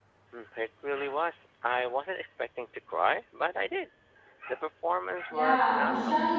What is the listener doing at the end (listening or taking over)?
taking over